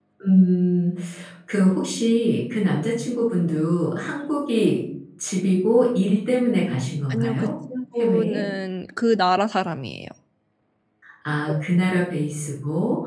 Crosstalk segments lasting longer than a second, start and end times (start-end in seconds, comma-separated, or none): none